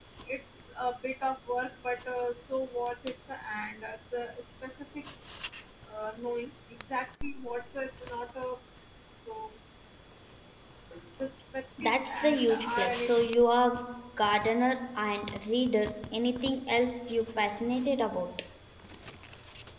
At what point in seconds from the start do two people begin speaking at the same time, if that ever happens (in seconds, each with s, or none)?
11.8 s